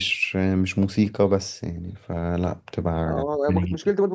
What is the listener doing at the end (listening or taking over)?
taking over